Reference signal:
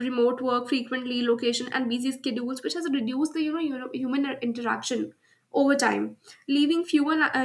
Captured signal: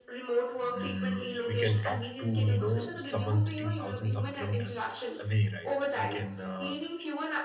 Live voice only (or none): Mm, we can talk to, you know, someone sitting thousands of kilometers away, right? We can uh,